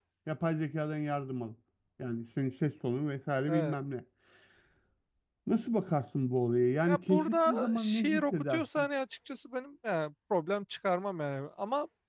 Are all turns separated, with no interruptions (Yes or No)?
No